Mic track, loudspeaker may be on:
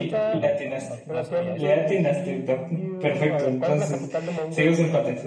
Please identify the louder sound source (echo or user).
user